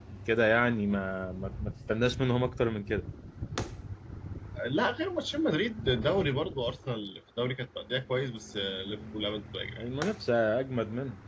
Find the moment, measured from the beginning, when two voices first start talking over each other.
none

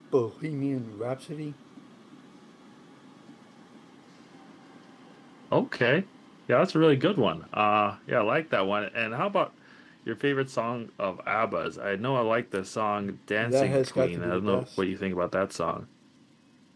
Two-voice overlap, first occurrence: 13 s

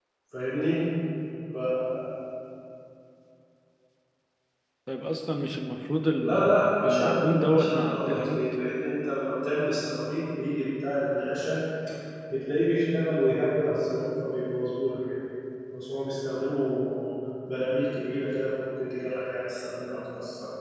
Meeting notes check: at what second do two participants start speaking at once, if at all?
6 s

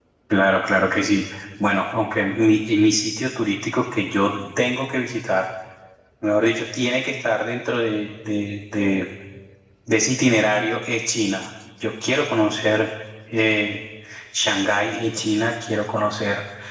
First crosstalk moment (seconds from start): none

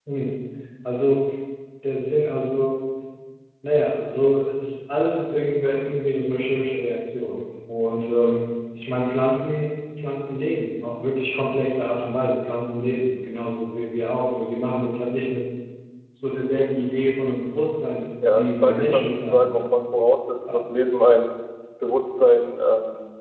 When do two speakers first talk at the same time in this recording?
18 s

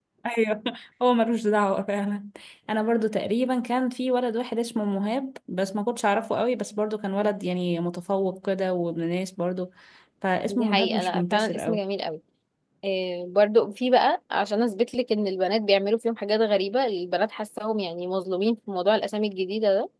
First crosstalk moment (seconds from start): 10 s

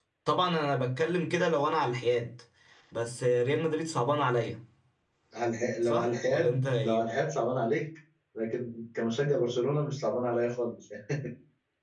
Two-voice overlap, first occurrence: 6 s

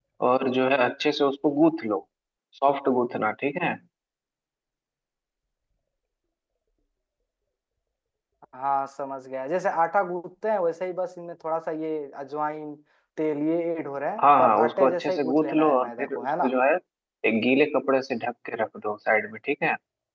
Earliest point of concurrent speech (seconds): 14 s

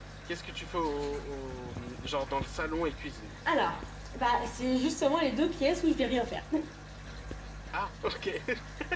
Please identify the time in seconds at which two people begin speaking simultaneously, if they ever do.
none

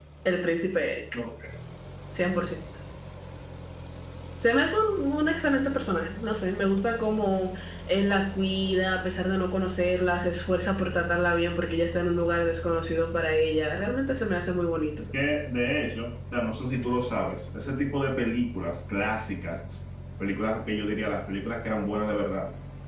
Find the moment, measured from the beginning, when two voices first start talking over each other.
none

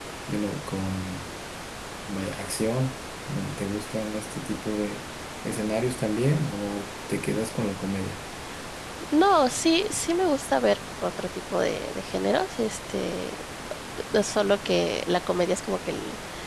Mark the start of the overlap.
none

